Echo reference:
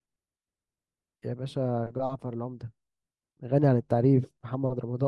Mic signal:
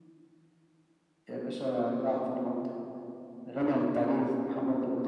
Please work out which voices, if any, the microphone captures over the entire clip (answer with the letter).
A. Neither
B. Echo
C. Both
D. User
B